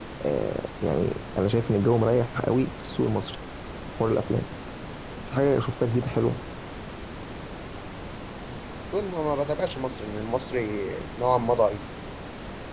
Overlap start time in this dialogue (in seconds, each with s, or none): none